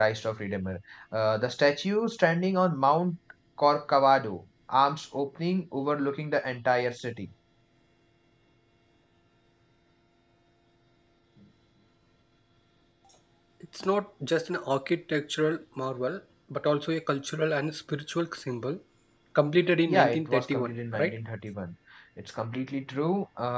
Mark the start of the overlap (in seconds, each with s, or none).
19.9 s